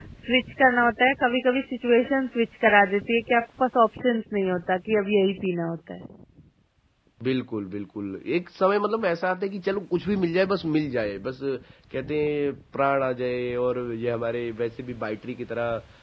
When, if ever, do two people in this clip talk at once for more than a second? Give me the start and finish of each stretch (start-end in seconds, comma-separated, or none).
none